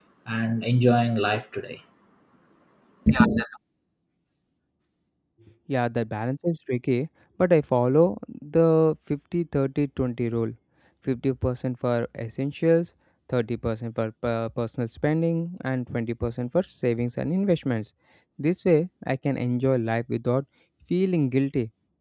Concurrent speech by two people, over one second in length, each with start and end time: none

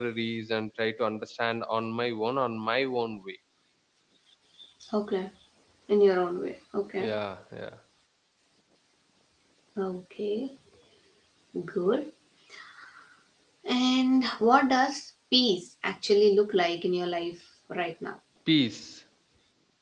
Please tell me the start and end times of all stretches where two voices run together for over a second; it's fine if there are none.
none

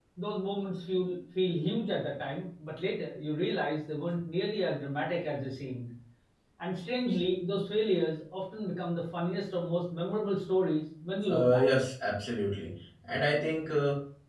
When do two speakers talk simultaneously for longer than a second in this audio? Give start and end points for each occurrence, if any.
none

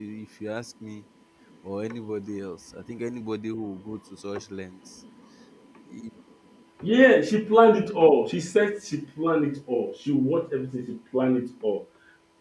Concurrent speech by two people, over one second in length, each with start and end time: none

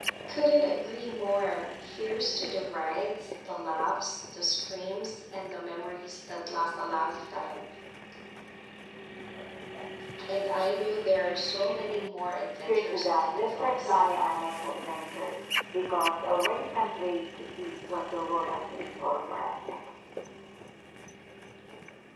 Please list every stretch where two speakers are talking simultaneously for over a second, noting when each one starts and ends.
12.6-14.0

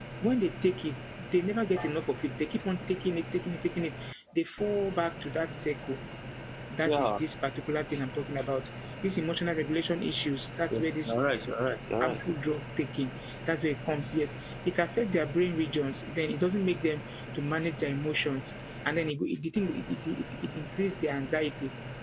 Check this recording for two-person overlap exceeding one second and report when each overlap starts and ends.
none

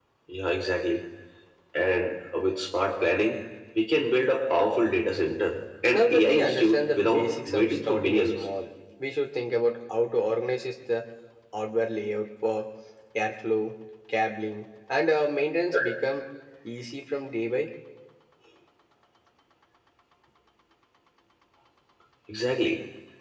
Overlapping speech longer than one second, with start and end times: 5.9-8.4

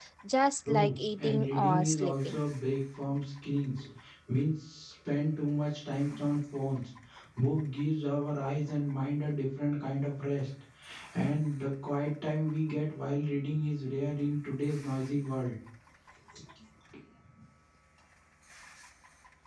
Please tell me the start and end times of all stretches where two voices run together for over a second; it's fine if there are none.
0.7-2.4

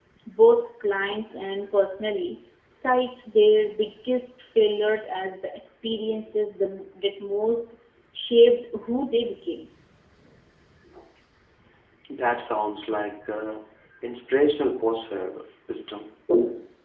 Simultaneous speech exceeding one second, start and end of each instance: none

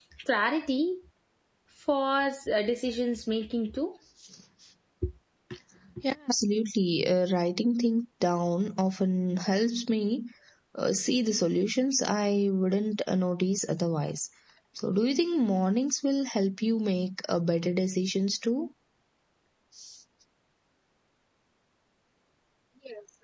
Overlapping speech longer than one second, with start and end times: none

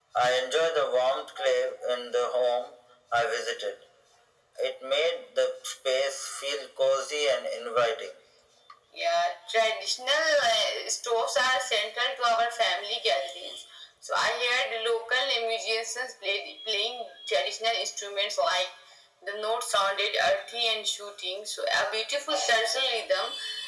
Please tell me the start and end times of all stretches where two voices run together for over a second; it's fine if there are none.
none

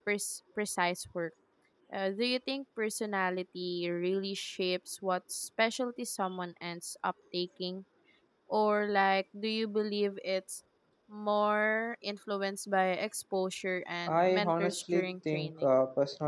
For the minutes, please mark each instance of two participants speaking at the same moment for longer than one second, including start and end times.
14.2-15.7

